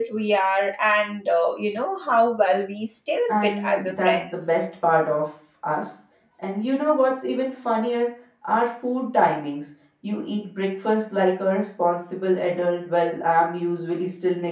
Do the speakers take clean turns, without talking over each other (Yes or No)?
No